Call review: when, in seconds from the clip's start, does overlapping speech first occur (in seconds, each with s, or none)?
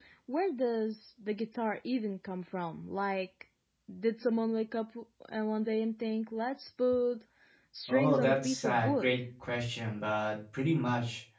7.9 s